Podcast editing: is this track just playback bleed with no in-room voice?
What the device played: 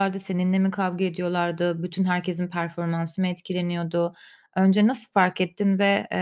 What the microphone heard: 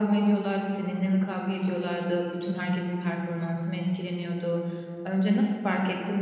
Yes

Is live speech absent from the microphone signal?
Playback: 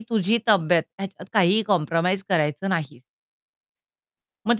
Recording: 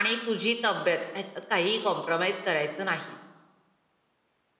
Yes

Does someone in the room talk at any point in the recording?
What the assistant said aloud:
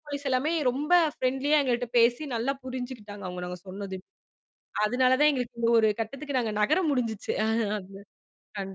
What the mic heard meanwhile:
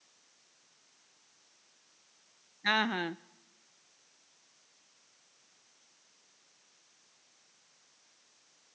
Yes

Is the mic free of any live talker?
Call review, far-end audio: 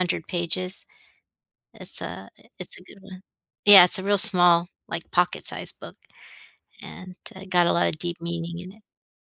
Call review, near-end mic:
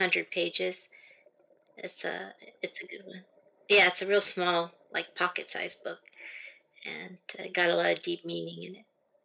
Yes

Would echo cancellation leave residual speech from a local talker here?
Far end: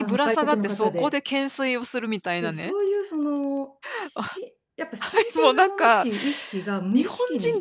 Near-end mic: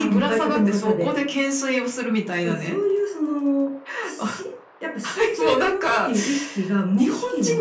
No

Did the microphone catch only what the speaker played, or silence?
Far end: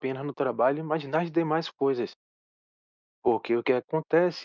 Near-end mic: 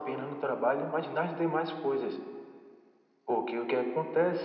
Yes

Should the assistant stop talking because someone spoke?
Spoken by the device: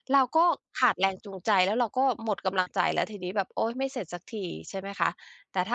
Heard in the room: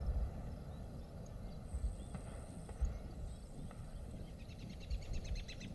No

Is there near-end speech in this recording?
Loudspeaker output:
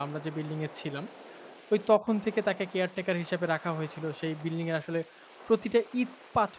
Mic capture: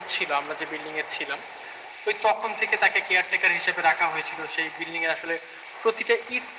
No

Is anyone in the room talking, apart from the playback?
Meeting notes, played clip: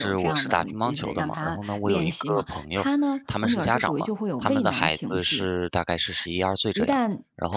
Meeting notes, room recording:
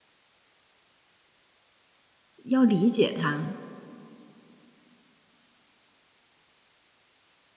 Yes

